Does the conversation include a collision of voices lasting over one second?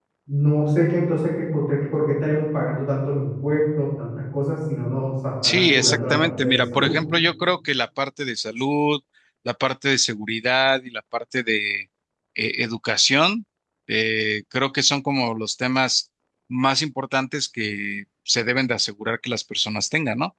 Yes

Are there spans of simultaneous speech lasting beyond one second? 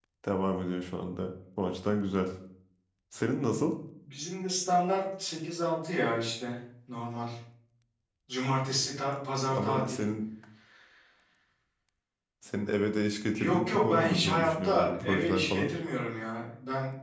Yes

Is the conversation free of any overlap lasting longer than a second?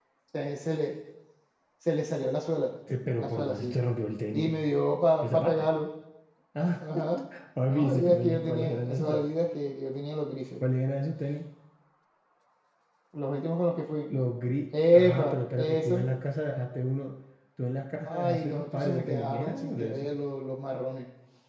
No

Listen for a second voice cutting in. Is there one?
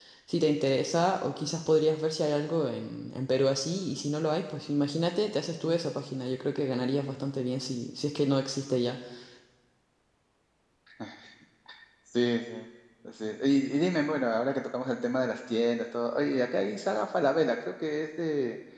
No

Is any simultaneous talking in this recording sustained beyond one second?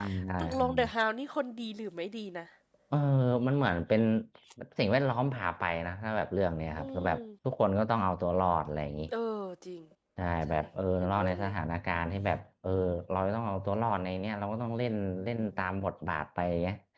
No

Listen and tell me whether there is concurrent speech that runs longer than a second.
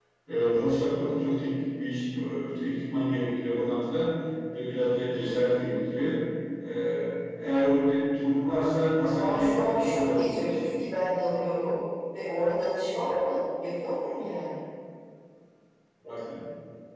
Yes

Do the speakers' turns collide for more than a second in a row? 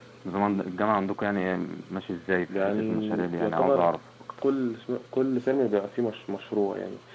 Yes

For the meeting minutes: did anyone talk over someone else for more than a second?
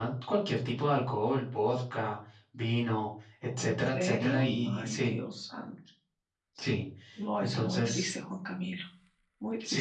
Yes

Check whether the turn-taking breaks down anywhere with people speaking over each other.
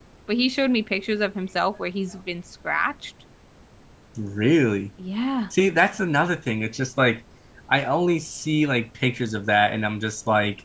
No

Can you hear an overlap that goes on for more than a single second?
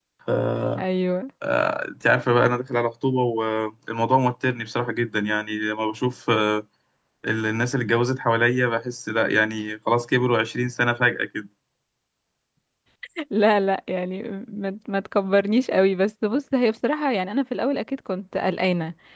No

